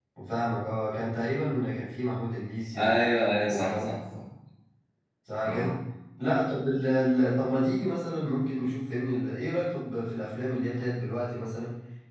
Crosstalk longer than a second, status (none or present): none